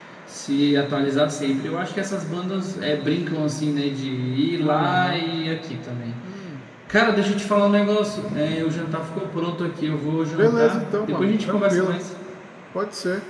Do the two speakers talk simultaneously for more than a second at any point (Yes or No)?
Yes